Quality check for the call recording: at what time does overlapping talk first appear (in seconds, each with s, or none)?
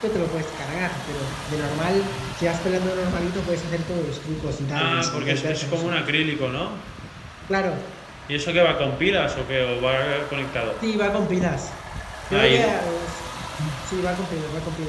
4.7 s